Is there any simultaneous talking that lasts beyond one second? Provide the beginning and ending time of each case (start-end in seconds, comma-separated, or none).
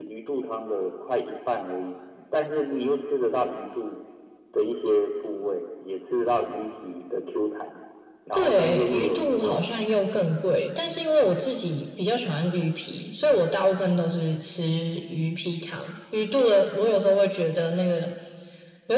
8.3-9.6